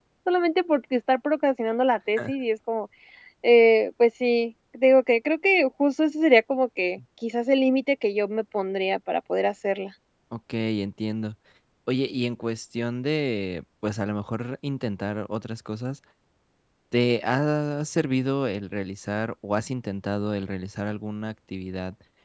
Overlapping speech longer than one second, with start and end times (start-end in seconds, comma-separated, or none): none